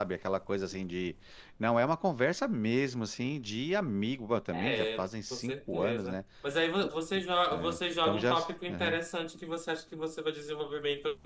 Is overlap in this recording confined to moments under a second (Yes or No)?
No